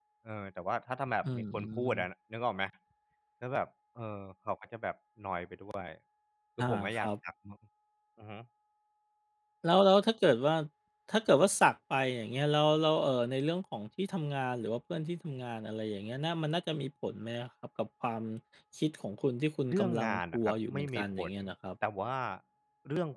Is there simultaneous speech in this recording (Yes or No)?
Yes